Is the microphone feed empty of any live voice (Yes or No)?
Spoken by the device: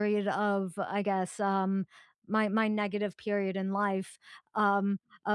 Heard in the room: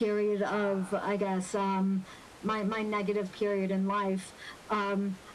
No